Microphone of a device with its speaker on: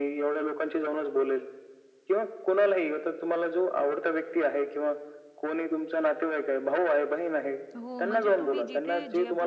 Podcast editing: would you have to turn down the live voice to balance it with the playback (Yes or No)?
No